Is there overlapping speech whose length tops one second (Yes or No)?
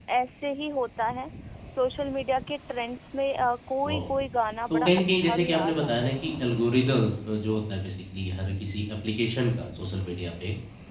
Yes